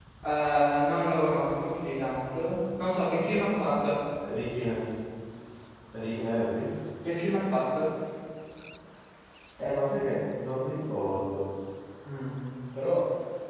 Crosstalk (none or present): none